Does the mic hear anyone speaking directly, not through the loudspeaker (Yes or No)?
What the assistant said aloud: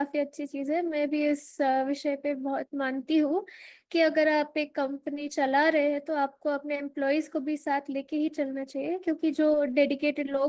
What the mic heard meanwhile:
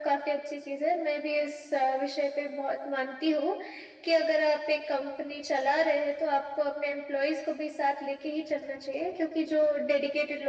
No